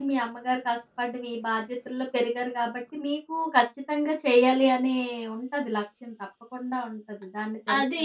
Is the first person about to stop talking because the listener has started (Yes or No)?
Yes